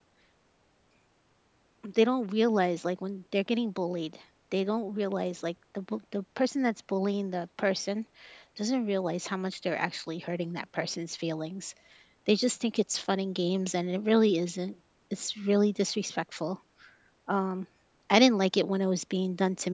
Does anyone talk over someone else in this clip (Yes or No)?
No